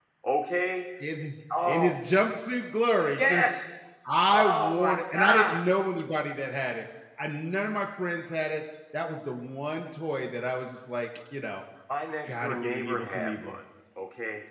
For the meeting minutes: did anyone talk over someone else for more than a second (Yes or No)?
Yes